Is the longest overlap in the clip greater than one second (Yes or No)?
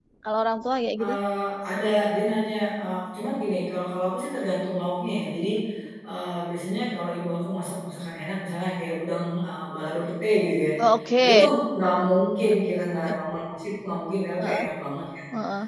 No